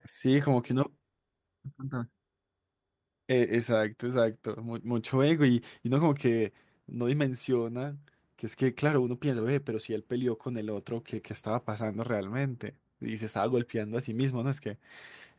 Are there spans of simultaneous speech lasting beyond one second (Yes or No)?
No